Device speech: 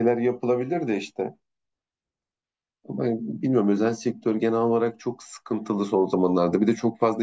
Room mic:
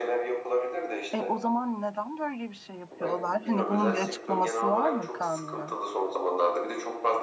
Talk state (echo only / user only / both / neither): both